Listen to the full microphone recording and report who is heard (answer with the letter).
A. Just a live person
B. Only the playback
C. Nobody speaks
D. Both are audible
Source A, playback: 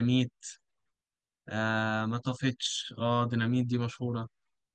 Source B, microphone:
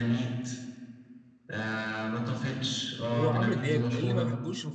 D